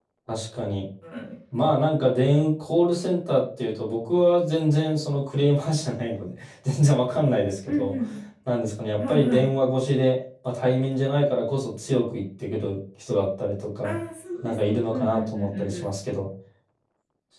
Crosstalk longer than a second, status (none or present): present